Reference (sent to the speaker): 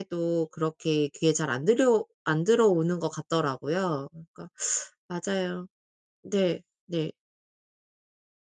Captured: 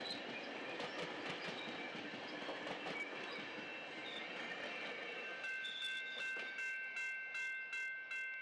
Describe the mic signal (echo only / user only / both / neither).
neither